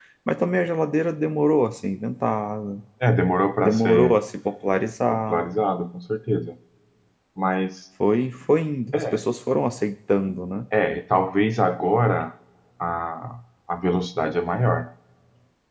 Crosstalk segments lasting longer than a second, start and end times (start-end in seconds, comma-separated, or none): none